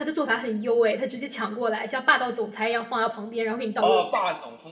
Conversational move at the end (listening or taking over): taking over